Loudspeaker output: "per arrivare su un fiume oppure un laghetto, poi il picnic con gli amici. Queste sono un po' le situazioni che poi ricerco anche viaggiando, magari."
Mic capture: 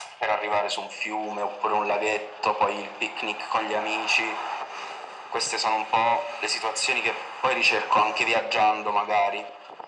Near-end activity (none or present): none